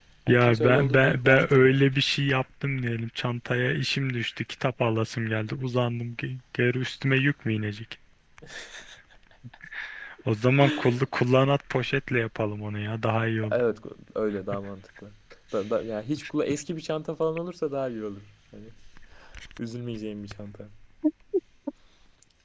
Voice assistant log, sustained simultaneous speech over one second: present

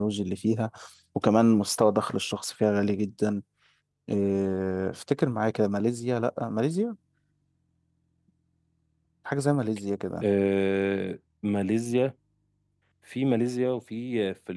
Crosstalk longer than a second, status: none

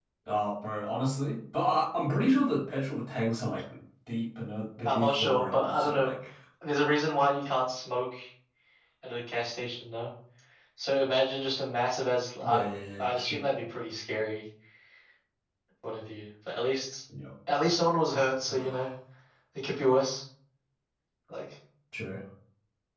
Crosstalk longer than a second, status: present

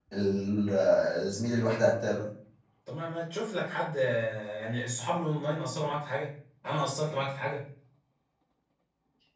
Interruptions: none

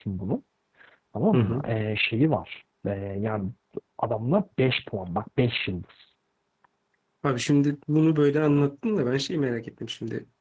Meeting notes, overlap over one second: none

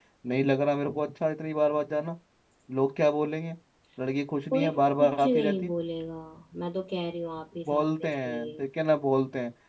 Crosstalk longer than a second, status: present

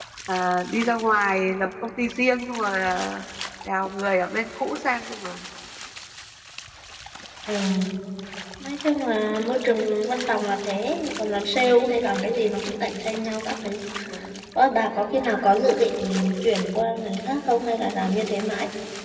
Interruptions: none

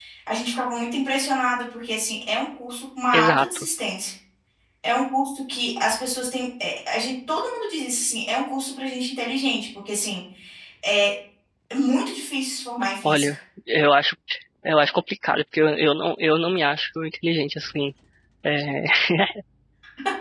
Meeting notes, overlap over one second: none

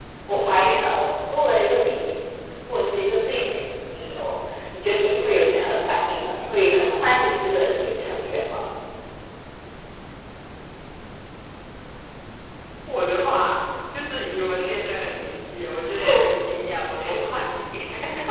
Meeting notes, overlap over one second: none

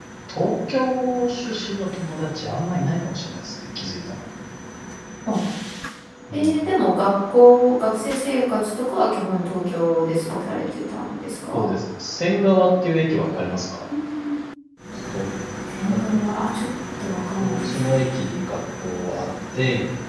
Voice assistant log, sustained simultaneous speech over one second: none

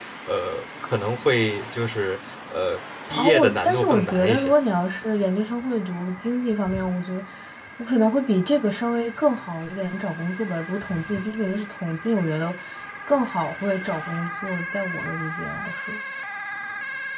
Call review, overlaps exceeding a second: present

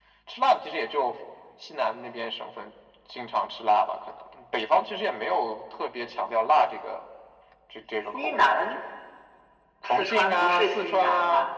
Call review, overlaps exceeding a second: present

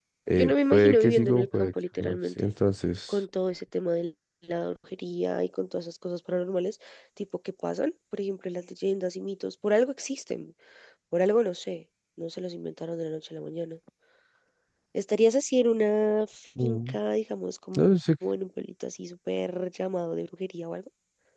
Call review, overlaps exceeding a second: present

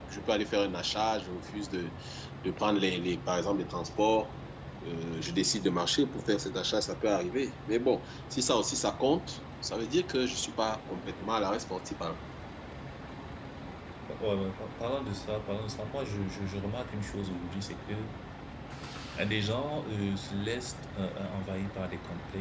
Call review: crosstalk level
none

